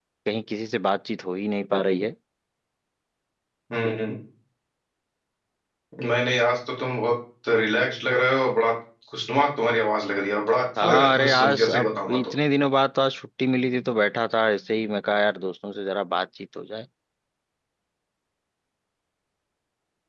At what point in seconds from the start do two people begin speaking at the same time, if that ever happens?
10.8 s

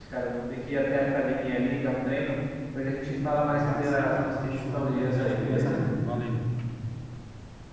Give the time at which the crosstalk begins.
3.5 s

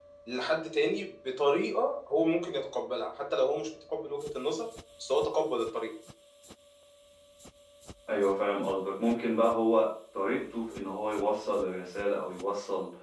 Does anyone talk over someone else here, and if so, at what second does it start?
none

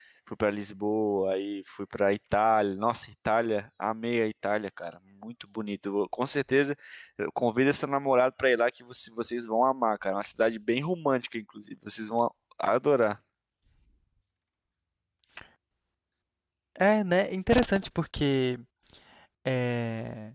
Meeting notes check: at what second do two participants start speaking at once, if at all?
none

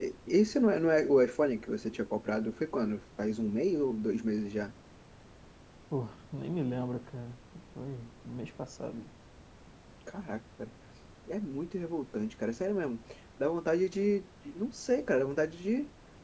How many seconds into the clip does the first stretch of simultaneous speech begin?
none

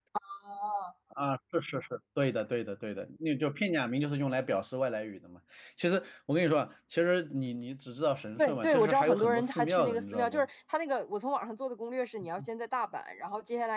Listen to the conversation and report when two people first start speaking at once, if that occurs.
8.4 s

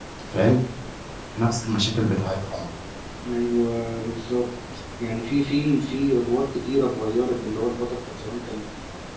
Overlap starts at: none

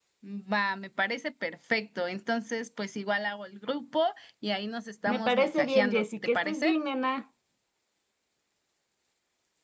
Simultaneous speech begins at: 5.1 s

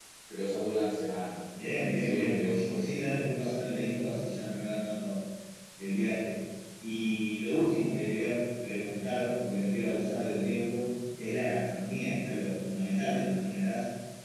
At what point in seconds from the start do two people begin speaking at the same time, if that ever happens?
1.6 s

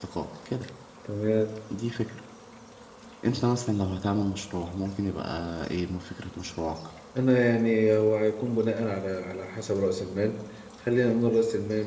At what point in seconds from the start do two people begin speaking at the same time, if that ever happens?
none

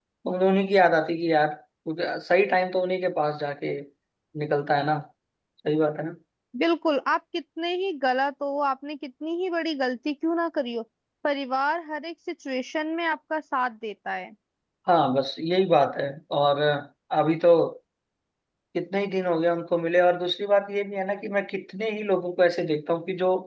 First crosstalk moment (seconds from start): none

